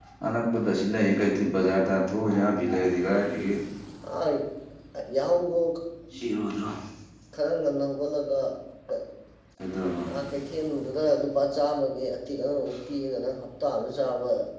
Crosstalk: none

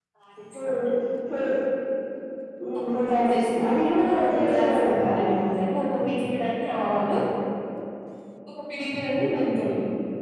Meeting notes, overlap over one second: present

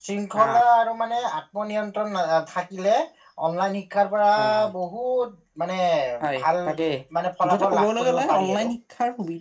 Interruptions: present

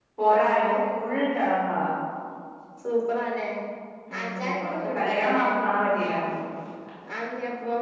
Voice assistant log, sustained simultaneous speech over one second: present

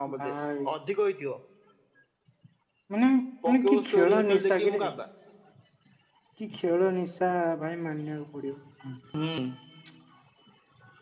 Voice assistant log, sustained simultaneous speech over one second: present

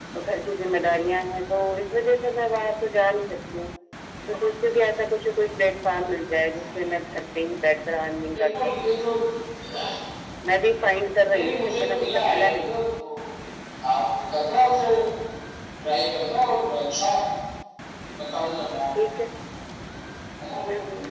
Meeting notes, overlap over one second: present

